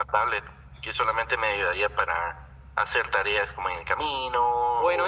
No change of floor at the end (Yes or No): No